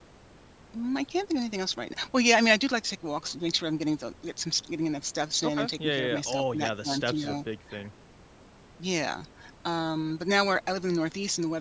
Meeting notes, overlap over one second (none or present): present